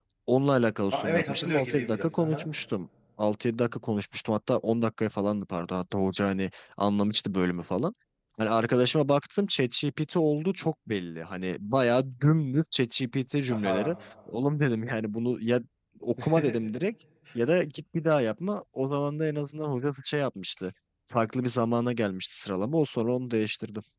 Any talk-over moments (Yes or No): Yes